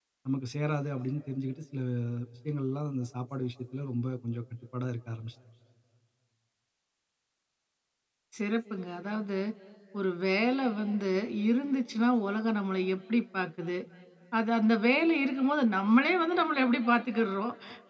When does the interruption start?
none

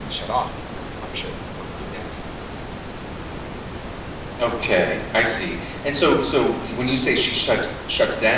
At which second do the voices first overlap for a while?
none

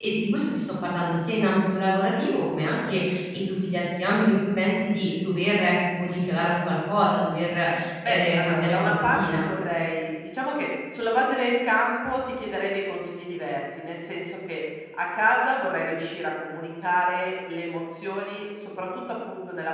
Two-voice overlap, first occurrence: 8.0 s

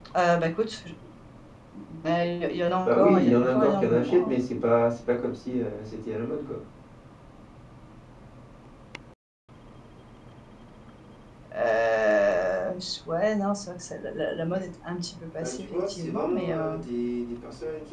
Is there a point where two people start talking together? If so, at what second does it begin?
2.9 s

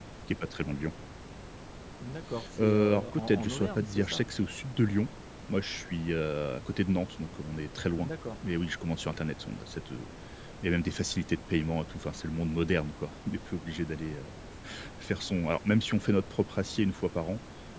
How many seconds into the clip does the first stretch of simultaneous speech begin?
2.6 s

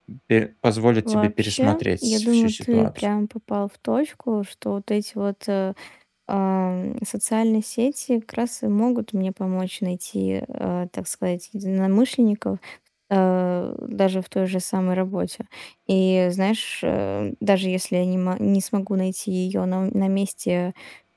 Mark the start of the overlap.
1.1 s

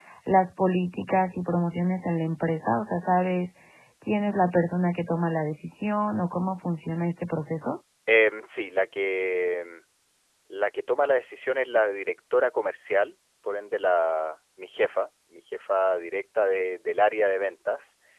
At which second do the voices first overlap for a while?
none

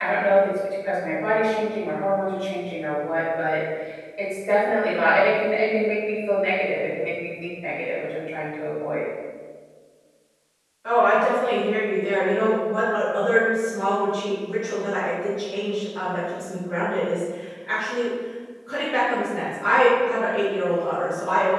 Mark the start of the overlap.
none

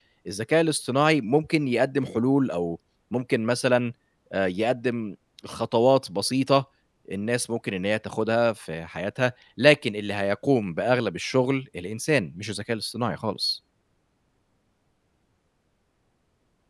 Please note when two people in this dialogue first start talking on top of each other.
none

